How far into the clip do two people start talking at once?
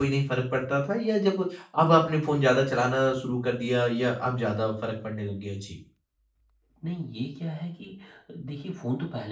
none

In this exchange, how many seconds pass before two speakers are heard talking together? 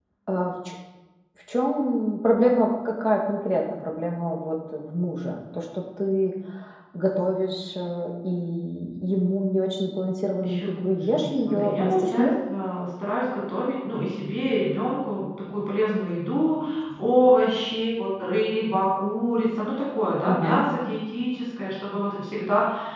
10.4 s

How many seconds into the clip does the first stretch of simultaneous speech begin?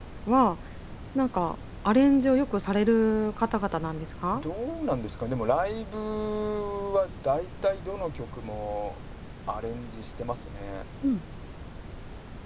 none

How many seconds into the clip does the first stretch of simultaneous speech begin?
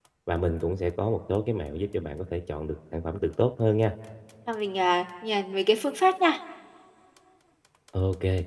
none

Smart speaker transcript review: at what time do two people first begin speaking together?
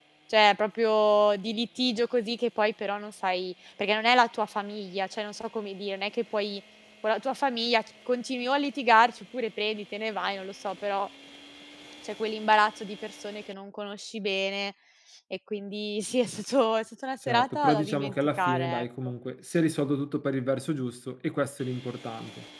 17.3 s

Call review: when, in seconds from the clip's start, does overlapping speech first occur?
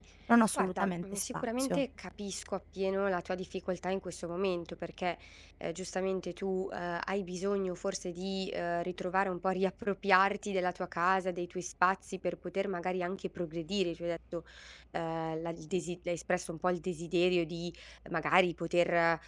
0.5 s

